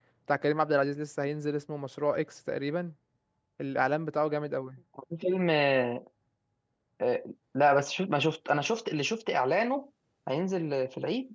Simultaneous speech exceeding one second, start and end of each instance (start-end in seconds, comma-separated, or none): none